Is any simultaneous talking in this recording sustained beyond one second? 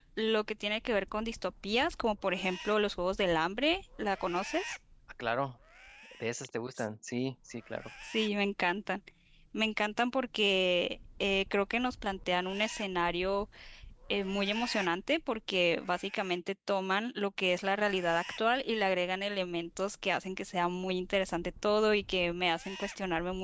No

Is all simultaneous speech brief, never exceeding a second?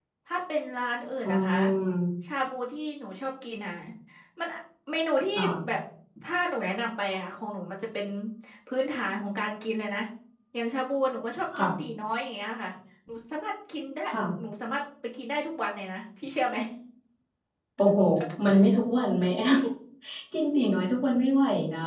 Yes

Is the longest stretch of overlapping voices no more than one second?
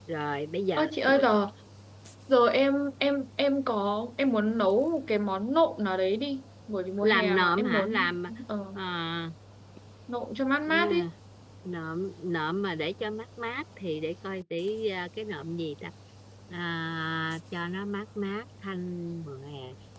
No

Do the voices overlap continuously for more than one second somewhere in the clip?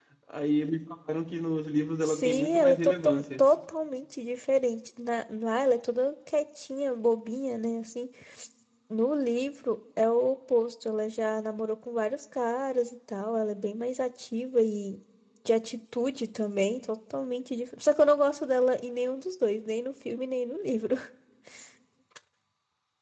Yes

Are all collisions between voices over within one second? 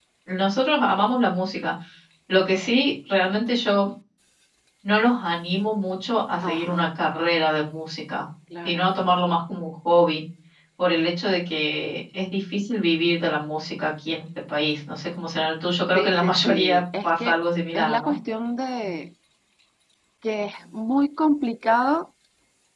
No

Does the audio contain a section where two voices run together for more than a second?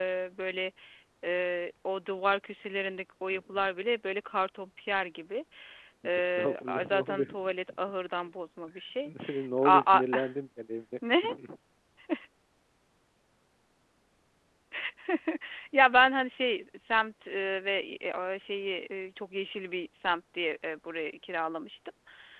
Yes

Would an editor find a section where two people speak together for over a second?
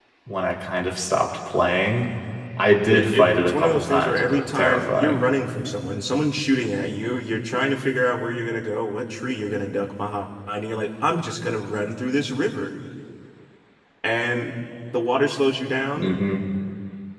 Yes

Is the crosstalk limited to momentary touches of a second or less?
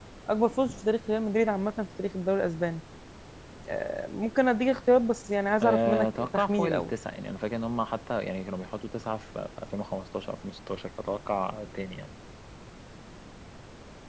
No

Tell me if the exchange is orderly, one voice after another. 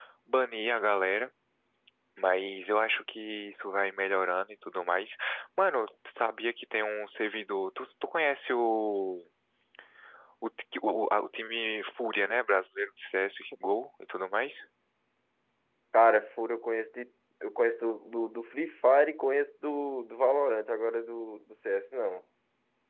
Yes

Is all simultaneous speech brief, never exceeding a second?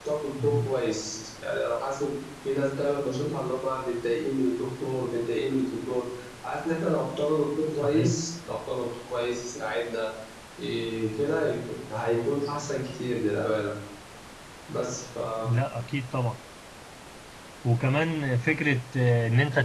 Yes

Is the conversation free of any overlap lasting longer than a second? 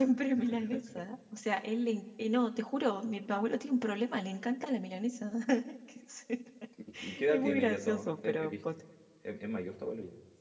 No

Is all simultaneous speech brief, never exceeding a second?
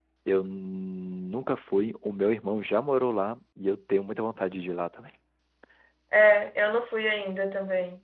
Yes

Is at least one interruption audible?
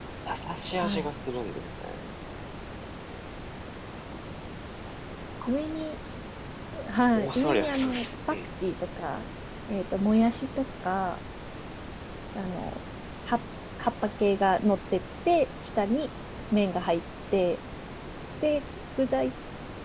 Yes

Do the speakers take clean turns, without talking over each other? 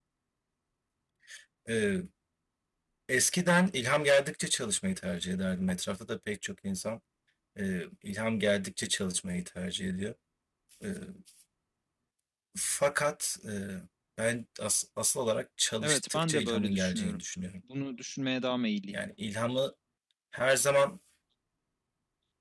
No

